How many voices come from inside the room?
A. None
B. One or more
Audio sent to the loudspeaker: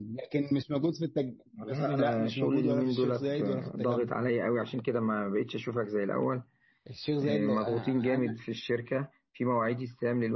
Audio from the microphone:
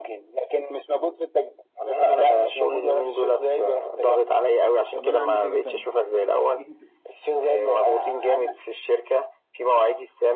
B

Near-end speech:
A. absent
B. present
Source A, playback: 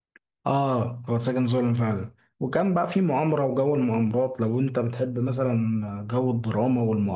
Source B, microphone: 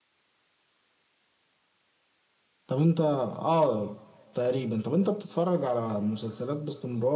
B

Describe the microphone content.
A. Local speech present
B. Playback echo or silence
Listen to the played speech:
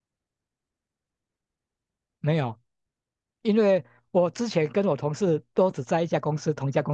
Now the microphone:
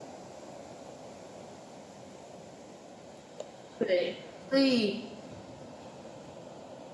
A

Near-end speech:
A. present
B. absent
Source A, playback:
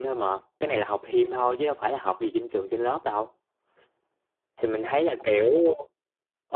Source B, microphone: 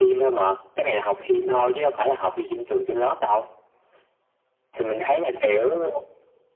B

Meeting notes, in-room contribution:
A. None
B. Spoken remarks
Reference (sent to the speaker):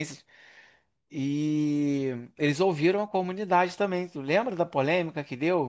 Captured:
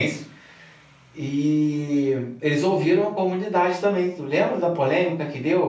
A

